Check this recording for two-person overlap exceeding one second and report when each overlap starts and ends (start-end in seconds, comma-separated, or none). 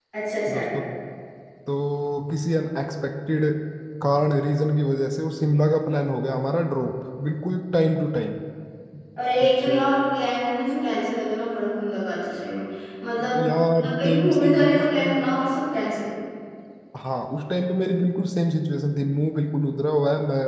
13.8-15.3